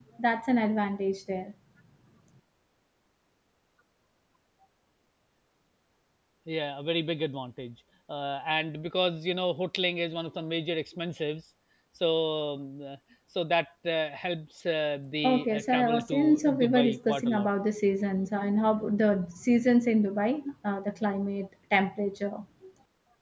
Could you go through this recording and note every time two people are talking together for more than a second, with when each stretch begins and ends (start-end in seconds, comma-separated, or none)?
15.2-17.5